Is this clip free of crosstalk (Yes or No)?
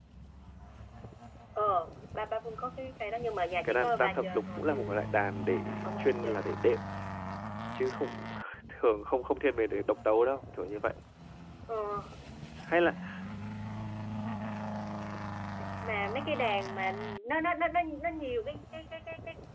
No